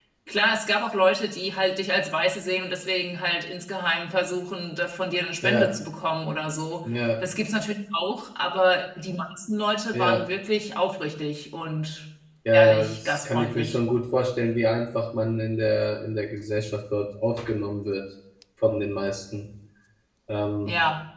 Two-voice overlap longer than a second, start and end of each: 12.5-13.8

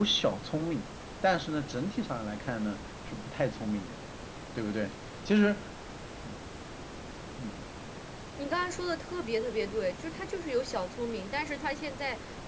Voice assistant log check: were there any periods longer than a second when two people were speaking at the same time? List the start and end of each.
none

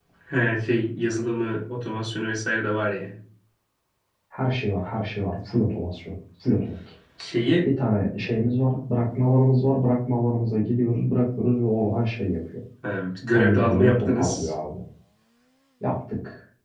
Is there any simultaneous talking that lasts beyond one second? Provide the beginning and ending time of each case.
13.3-14.5

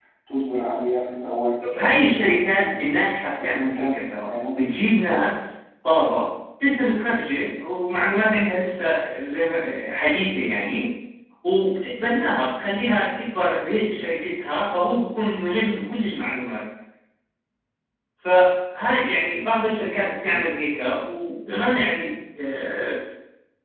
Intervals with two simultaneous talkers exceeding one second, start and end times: 2.4-3.8

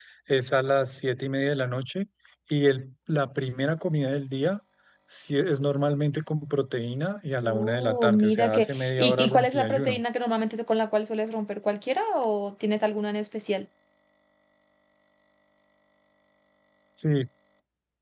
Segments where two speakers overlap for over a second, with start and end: 7.4-10.0

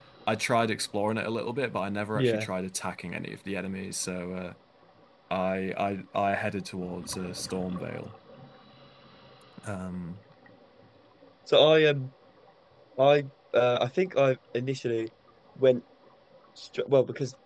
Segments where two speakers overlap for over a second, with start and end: none

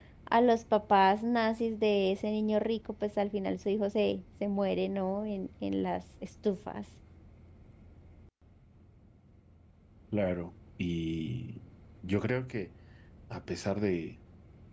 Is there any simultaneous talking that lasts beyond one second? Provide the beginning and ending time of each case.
none

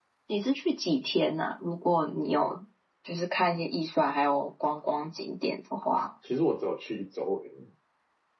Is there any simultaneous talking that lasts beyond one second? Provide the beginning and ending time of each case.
none

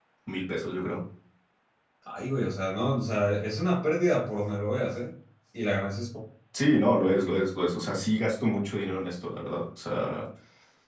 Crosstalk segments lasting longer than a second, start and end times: none

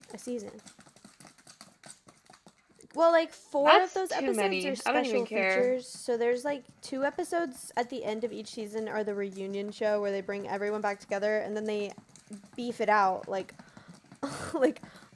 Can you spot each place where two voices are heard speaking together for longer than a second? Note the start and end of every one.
3.6-5.7

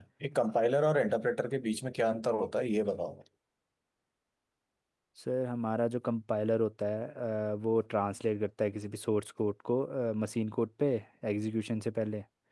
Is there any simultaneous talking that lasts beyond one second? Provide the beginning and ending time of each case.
none

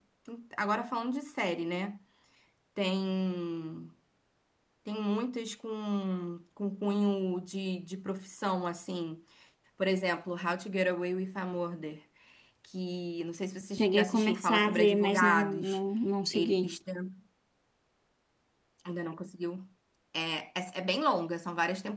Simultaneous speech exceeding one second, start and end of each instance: 13.8-15.8

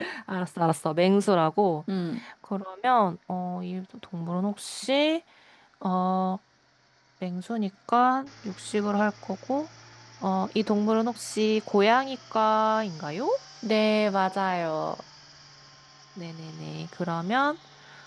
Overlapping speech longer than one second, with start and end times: none

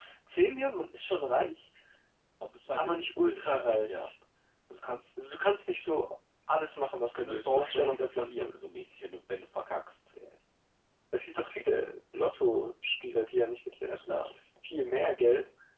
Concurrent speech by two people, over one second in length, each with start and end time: 2.7-4.1, 7.0-8.6

